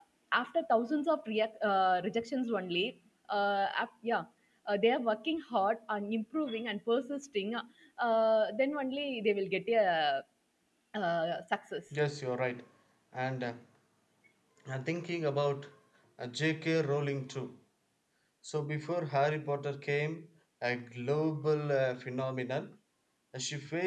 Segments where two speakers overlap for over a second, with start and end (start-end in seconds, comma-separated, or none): none